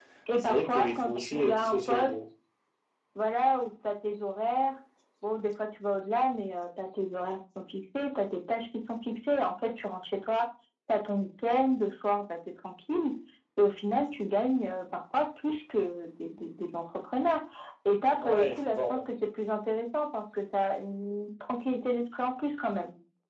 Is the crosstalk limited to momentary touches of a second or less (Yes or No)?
No